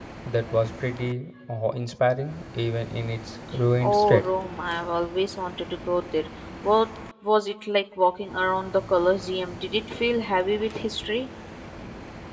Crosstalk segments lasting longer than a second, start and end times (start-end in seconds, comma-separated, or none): none